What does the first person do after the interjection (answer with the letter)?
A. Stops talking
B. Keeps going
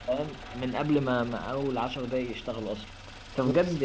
B